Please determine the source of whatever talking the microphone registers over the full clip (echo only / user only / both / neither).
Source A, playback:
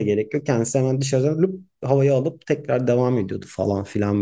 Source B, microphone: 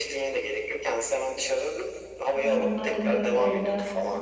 both